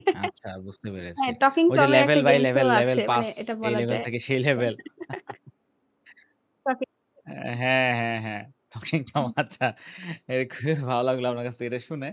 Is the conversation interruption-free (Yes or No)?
No